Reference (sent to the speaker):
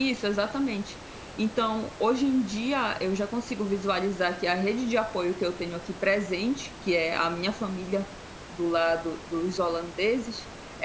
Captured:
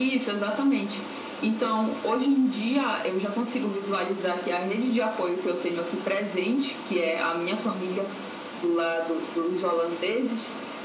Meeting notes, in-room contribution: none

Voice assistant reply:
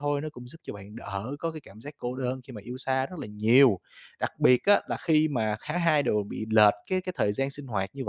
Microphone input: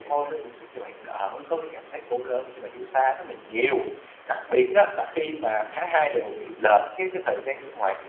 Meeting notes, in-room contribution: none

